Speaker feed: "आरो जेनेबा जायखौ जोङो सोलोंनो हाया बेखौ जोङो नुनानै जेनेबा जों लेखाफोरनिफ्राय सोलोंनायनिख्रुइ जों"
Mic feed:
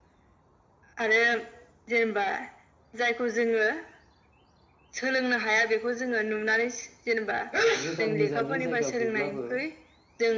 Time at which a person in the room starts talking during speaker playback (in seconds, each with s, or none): 7.8 s